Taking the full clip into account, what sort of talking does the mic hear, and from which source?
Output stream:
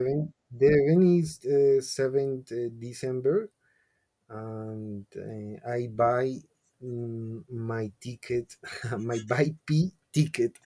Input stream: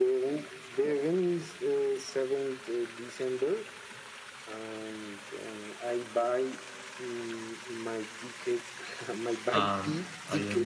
both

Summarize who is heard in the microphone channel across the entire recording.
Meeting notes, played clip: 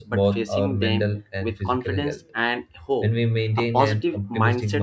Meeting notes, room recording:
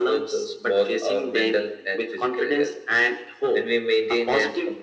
echo only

